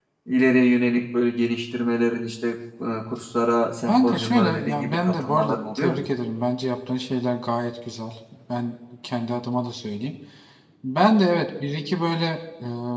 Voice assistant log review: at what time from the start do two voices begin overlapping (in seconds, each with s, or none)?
3.9 s